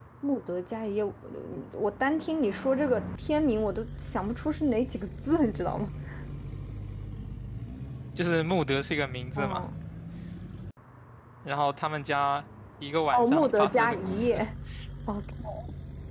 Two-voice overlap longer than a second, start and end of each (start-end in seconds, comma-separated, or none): 13.1-14.4